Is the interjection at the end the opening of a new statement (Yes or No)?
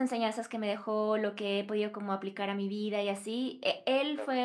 No